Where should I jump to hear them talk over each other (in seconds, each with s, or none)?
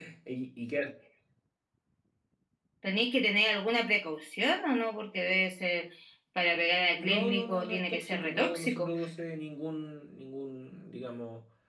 7.0 s